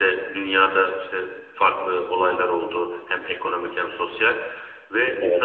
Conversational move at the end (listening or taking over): listening